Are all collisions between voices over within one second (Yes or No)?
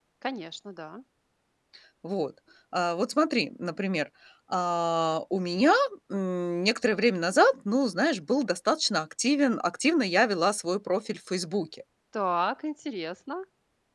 Yes